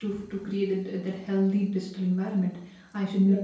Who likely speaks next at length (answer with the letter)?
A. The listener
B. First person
B